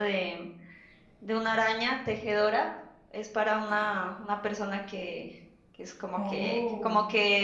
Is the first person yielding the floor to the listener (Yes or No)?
No